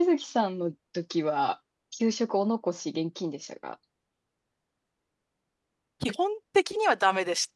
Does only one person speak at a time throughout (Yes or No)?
Yes